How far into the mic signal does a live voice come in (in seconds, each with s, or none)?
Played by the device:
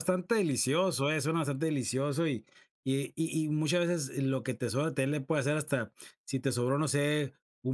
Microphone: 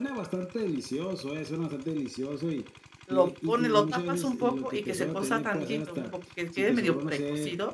3.1 s